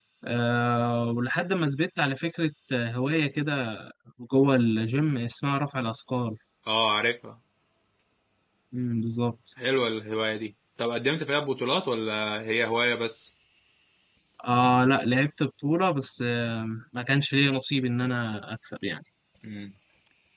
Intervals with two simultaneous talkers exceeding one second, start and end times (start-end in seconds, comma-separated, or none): none